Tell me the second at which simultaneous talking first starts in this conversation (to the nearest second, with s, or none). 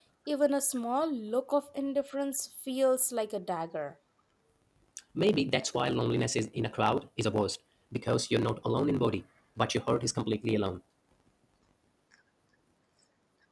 none